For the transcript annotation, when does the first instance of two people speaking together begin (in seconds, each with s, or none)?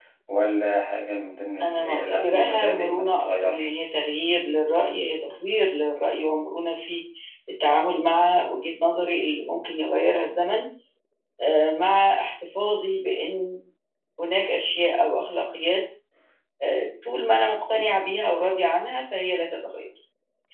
1.6 s